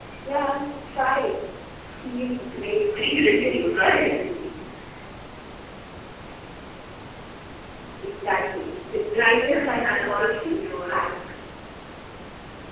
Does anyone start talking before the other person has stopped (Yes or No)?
Yes